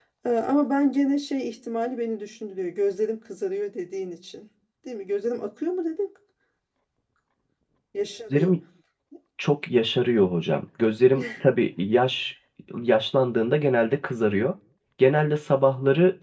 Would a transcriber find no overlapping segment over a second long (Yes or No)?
Yes